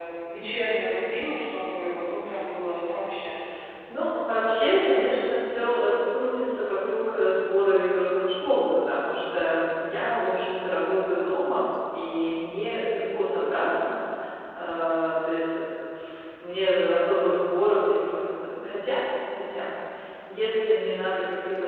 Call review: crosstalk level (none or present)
none